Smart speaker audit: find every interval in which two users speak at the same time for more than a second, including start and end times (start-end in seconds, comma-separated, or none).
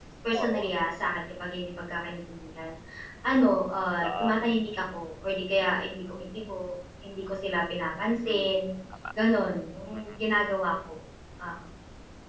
none